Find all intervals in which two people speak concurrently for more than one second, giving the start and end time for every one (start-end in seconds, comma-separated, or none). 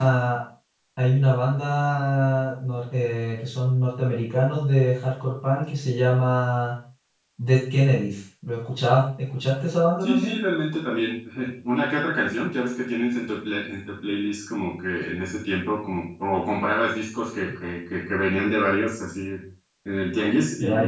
none